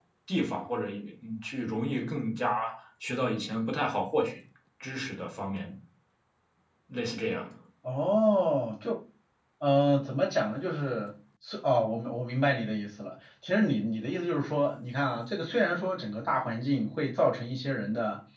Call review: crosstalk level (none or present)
none